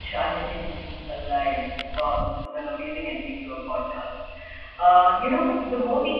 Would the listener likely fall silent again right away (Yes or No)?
Yes